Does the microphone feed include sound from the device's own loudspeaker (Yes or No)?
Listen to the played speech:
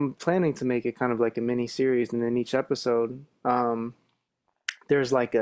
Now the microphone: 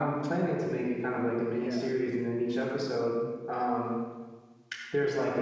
Yes